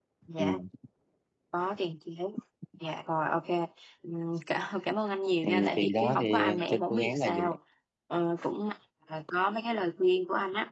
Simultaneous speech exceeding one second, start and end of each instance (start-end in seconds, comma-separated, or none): 5.4-7.4